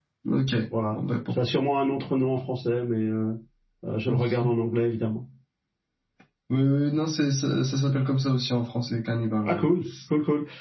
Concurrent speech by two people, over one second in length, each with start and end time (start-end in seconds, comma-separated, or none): none